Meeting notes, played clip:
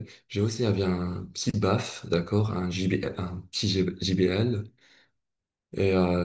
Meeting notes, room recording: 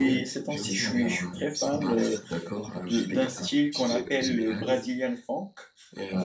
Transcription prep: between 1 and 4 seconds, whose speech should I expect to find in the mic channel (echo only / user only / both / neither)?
both